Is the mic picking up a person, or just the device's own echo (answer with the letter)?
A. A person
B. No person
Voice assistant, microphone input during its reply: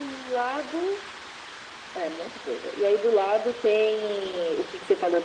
B